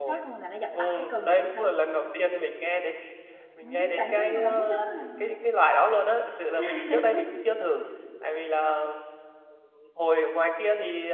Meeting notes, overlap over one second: present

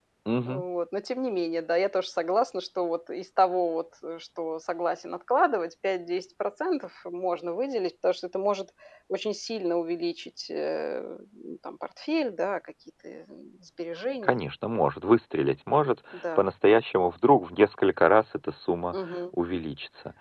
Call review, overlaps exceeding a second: none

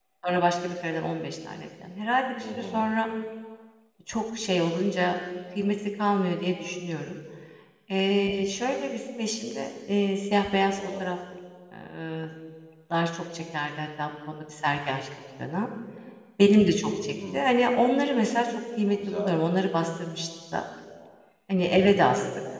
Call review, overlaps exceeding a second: none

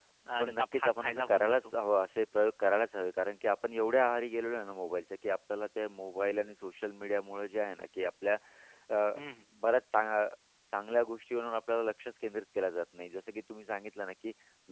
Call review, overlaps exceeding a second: present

